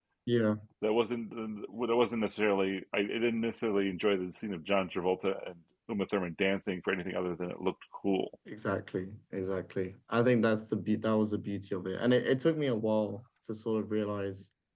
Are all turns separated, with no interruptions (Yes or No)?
Yes